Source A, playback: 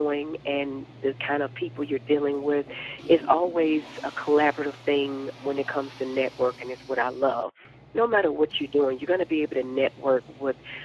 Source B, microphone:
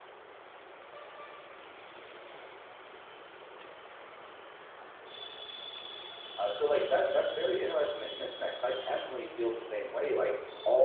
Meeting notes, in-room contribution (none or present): present